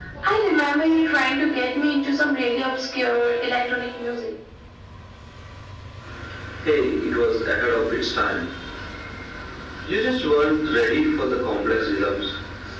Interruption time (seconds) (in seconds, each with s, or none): none